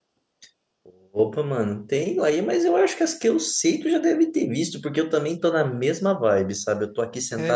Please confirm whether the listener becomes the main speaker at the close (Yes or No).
No